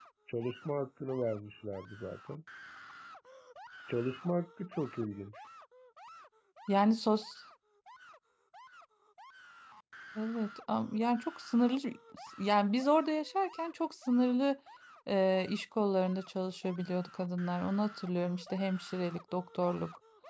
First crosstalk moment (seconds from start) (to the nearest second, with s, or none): none